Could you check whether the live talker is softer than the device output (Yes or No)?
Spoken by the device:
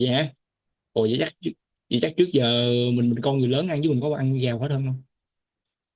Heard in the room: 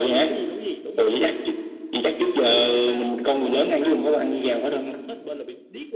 Yes